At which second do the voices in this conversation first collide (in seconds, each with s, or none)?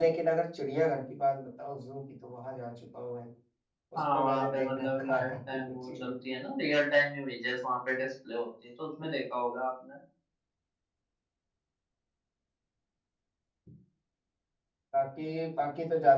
4.0 s